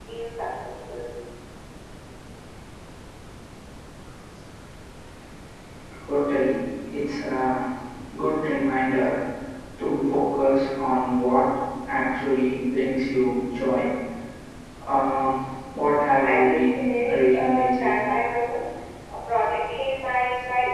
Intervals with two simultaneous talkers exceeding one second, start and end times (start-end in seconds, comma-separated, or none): 16.2-17.9